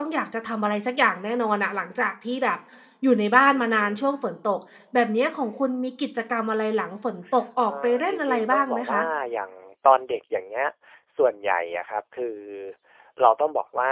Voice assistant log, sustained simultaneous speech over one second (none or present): present